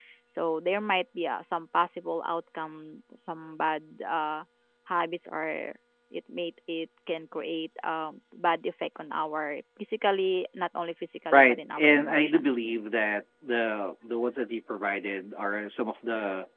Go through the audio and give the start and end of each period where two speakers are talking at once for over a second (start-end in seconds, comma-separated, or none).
11.3-12.5